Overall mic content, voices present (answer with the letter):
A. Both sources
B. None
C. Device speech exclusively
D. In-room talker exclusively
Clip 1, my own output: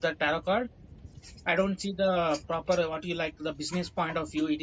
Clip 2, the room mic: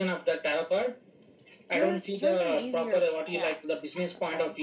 A